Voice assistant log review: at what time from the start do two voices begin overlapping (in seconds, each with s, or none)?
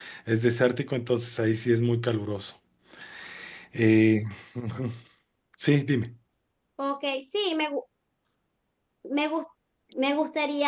none